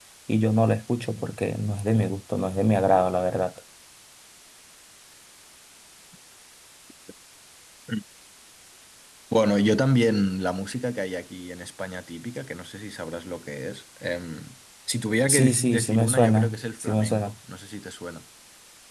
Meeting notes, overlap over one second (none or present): present